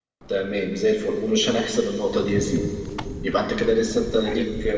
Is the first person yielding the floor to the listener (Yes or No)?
No